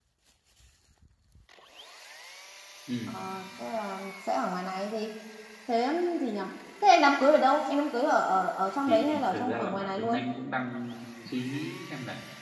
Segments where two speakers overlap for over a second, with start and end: 8.9-10.2

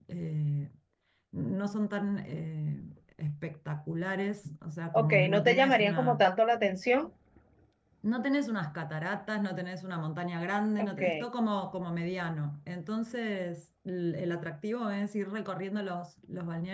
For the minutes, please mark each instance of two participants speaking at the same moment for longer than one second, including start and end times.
4.9-6.3

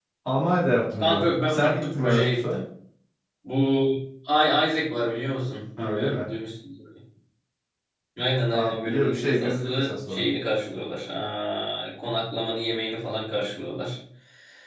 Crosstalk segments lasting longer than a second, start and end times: 1.0-2.6, 8.5-10.2

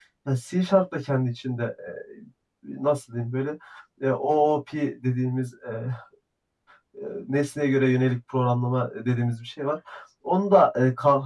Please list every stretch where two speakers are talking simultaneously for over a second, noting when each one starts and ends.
none

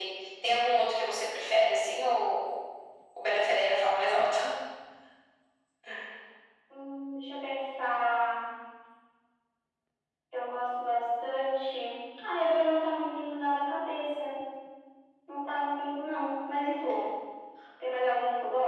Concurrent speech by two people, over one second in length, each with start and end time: none

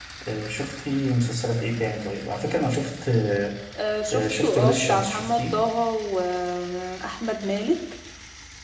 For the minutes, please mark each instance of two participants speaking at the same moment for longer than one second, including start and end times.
4.1-5.6

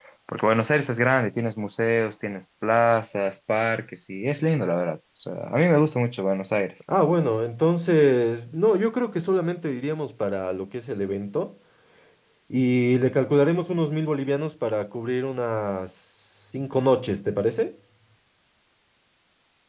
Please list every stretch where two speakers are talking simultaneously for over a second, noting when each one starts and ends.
none

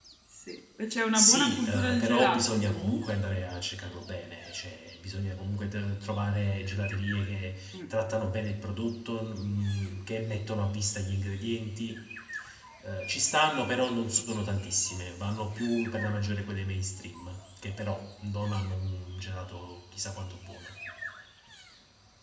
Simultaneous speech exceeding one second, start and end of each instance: 1.1-3.1

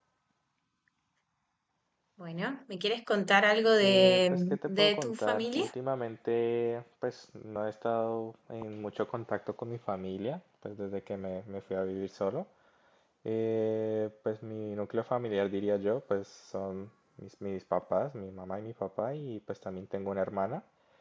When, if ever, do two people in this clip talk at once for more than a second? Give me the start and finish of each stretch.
3.8-5.7

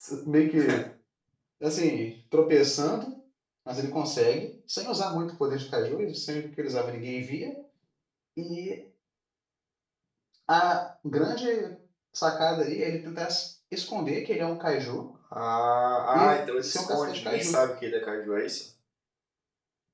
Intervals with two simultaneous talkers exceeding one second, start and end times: 16.1-17.6

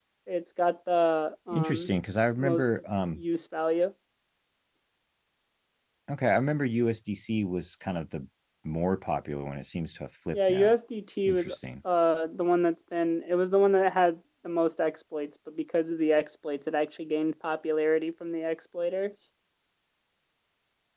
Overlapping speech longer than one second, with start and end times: none

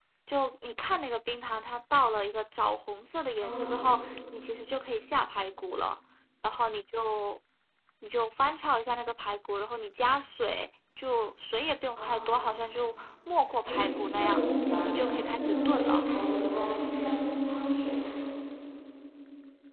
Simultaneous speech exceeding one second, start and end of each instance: 14.8-16.1

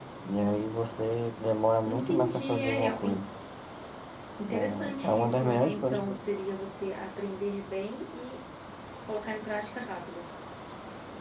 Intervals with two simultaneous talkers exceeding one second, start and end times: 1.9-3.2, 4.5-6.1

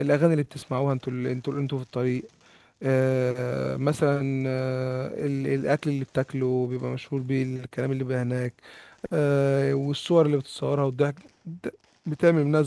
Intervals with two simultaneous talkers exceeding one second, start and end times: none

